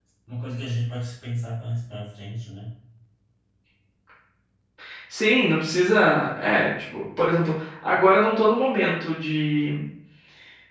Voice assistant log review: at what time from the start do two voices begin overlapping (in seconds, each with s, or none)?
none